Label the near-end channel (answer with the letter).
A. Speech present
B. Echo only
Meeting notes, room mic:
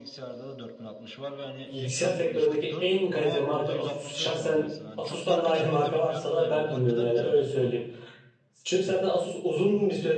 A